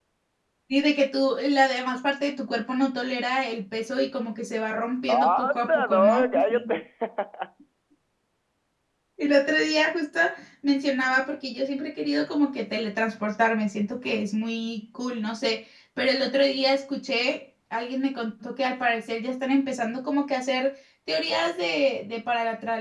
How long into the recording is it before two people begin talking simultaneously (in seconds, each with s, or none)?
5.1 s